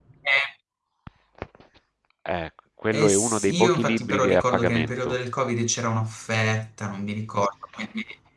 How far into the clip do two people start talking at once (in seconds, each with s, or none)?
2.9 s